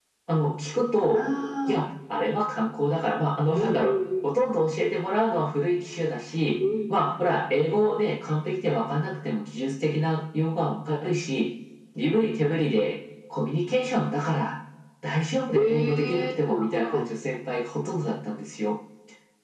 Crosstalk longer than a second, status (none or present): present